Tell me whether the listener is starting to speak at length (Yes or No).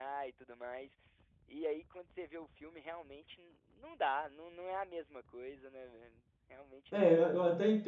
Yes